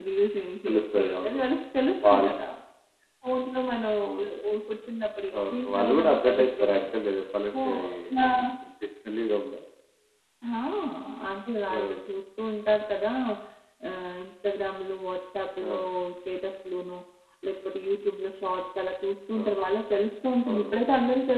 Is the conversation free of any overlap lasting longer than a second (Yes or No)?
No